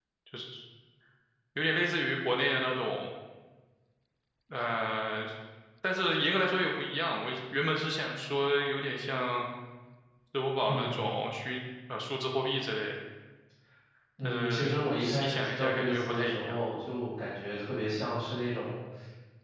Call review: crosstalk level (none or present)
present